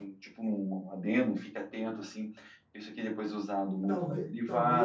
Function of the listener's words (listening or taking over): taking over